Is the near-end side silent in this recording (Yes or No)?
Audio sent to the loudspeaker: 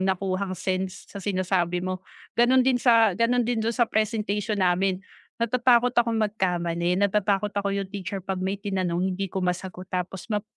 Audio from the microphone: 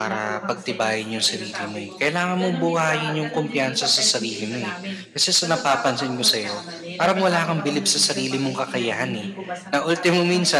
No